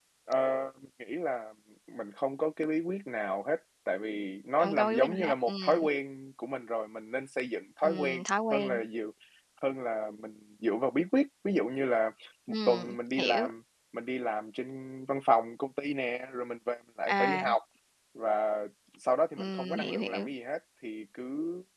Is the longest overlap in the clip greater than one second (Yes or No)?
Yes